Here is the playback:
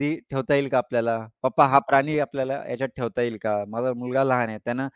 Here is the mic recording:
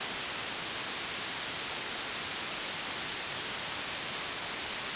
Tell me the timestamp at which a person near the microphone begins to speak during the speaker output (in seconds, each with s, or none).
none